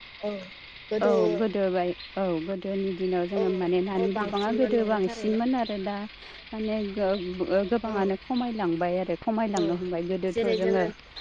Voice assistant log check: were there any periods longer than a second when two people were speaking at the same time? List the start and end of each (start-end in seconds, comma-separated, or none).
4.0-5.4